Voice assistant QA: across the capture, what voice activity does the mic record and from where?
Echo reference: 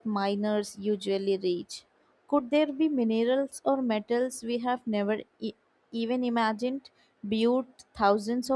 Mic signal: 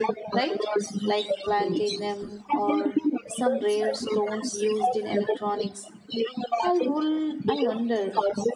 both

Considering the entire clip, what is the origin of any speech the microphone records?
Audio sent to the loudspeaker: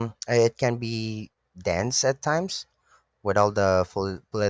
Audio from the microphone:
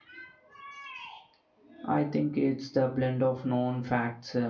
user only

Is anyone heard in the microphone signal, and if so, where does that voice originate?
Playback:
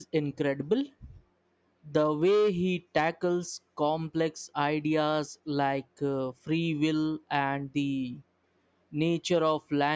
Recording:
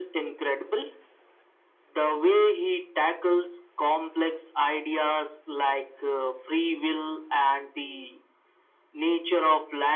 echo only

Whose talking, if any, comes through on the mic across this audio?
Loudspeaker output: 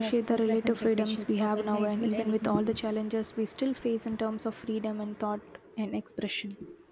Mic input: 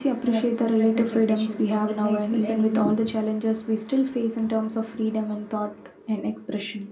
echo only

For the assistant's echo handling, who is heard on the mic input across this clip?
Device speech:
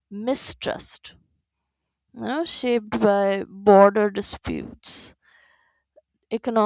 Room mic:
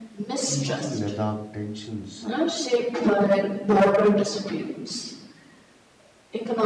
both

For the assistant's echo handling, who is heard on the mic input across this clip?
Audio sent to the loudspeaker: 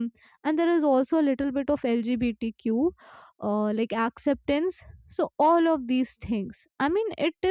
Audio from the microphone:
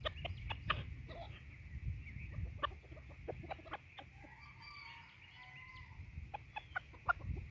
neither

